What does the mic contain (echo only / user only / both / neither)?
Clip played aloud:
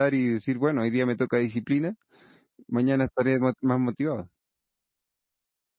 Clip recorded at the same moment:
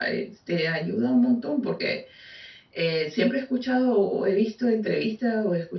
user only